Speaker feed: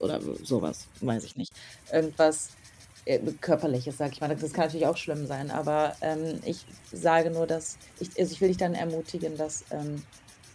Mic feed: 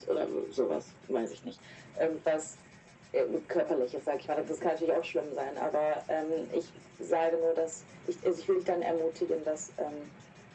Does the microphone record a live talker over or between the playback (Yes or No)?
No